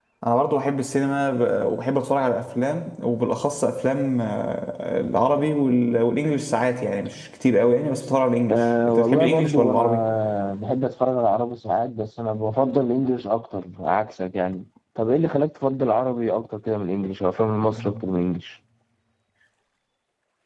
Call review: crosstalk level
present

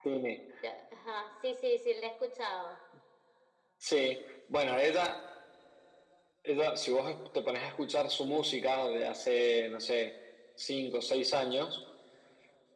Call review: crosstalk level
none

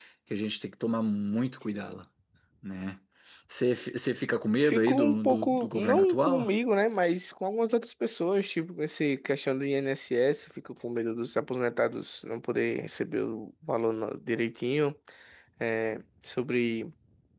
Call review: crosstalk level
present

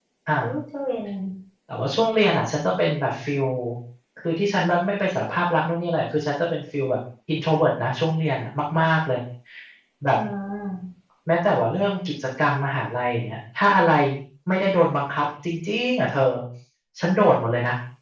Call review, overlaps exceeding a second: none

